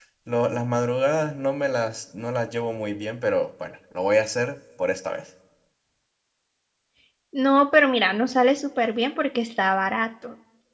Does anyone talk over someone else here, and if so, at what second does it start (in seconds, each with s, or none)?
none